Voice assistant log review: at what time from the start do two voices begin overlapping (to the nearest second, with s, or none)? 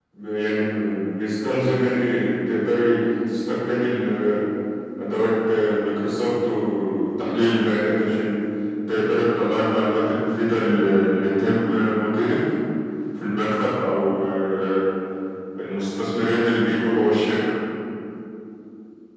none